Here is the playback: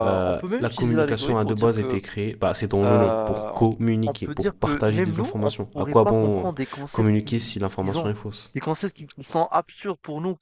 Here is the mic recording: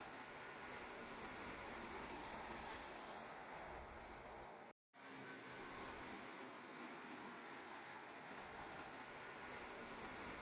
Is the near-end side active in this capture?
No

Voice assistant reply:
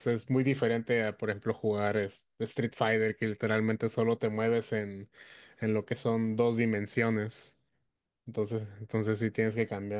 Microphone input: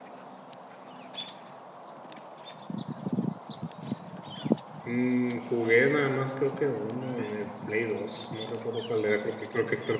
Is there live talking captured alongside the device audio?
Yes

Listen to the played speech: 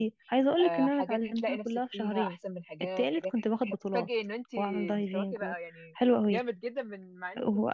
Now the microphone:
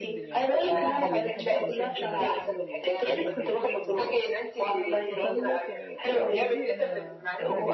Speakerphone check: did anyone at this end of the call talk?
Yes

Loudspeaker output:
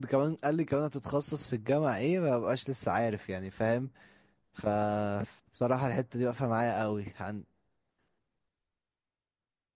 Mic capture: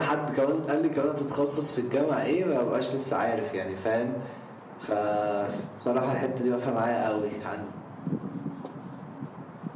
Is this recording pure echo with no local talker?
Yes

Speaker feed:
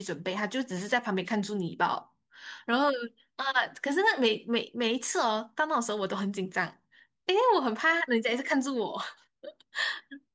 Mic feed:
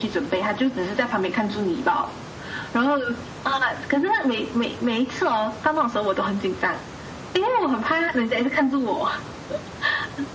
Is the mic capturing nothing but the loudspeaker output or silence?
Yes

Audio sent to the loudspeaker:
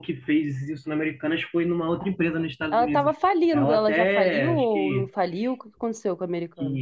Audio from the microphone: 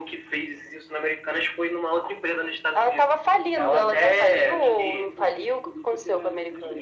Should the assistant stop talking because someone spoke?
Yes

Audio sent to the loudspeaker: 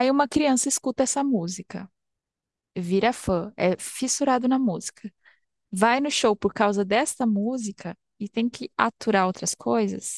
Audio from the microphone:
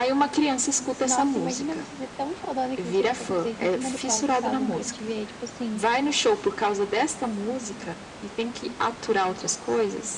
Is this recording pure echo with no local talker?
No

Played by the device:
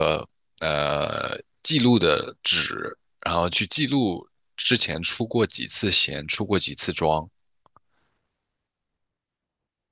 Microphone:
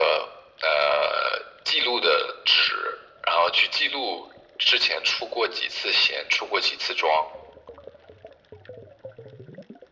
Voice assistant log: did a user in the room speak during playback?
No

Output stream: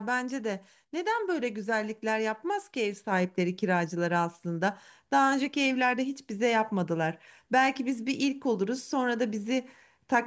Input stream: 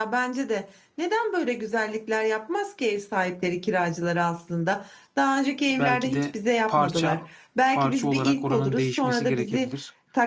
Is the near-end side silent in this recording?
No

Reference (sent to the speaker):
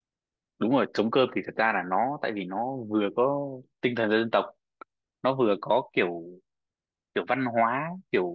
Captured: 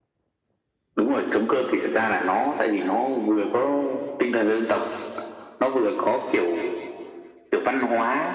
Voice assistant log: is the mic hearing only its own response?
Yes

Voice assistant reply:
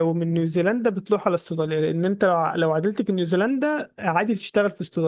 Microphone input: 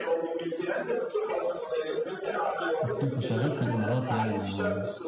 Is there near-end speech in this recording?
Yes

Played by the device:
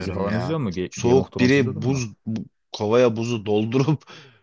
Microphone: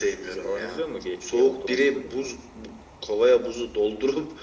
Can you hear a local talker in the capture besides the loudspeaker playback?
No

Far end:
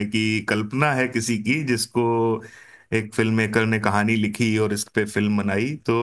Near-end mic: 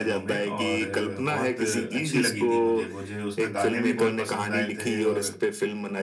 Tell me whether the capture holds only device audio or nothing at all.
No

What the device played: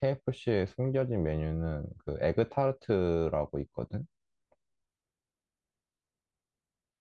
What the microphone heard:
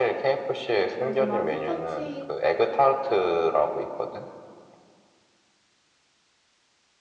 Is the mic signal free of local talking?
No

